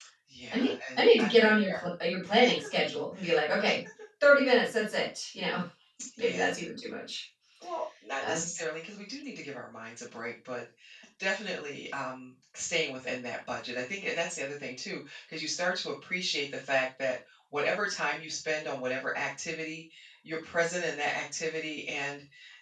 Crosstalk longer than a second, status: present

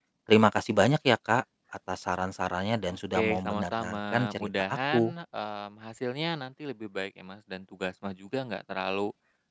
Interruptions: present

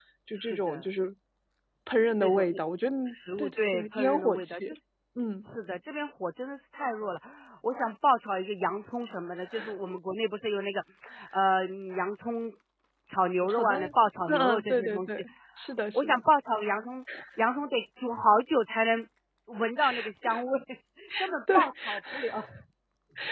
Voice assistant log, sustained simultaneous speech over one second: present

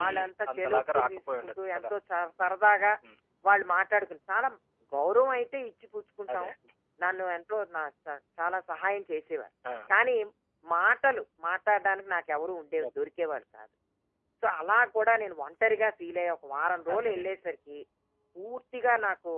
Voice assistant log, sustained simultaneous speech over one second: present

